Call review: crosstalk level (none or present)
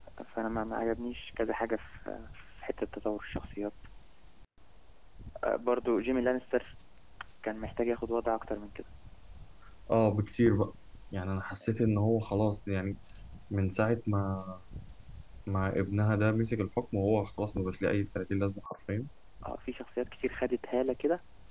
none